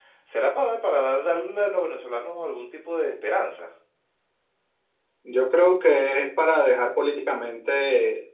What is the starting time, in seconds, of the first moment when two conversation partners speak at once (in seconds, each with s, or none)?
none